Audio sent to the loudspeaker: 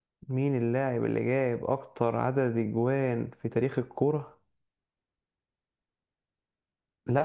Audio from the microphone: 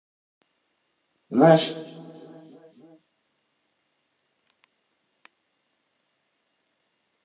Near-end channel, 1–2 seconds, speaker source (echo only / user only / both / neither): user only